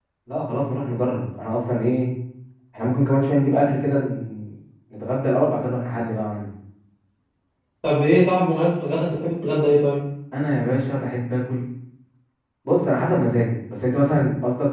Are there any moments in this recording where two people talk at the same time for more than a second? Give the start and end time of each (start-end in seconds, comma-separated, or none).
none